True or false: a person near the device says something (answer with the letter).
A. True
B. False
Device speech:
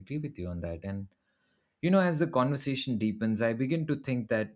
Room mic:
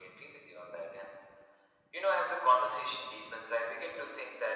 B